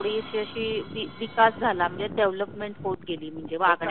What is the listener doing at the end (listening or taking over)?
taking over